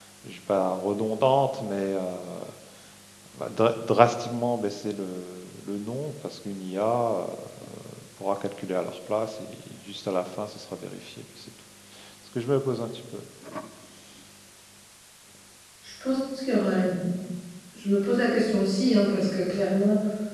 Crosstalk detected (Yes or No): No